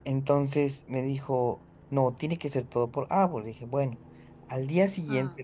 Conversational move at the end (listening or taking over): listening